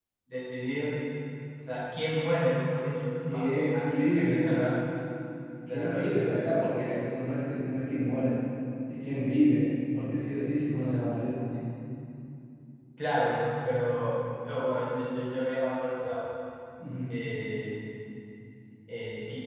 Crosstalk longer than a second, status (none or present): present